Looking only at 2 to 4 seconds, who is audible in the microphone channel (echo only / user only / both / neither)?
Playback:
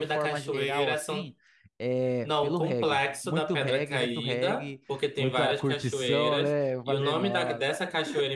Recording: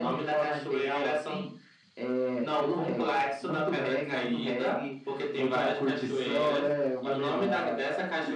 echo only